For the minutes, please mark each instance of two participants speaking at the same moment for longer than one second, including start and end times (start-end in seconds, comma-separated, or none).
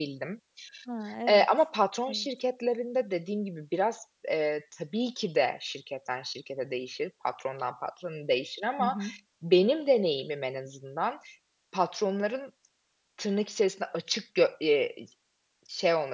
none